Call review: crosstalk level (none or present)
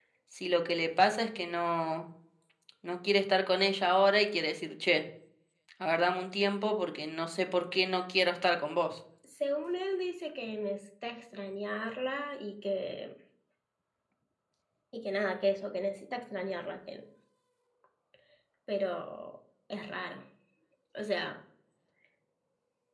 none